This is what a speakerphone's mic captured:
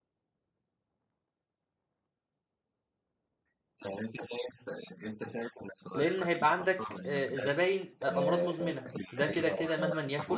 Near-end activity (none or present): present